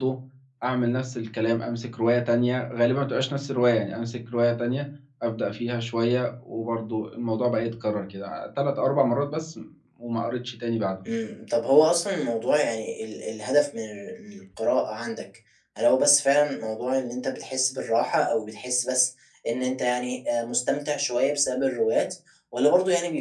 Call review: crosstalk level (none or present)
none